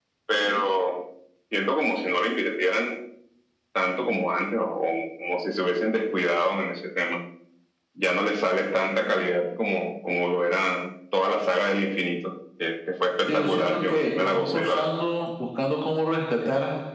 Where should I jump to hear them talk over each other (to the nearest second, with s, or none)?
13 s